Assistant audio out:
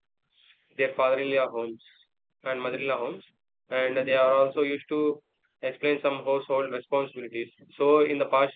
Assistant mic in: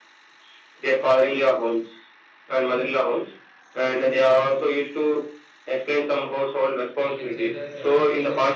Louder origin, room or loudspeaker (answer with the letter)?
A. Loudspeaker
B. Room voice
A